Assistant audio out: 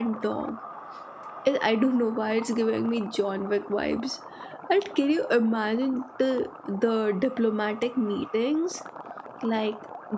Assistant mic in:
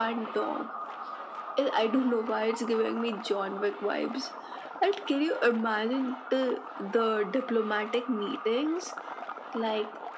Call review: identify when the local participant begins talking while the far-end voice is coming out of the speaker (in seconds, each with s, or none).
none